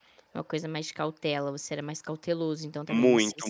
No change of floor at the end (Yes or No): No